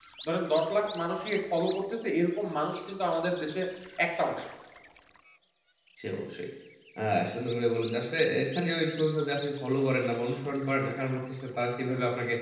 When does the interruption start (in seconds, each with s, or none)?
none